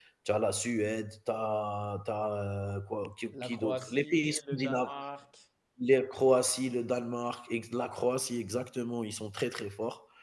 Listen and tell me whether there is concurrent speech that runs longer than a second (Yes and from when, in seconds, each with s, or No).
Yes, from 3.3 s